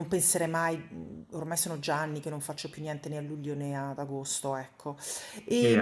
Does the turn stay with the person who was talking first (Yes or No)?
No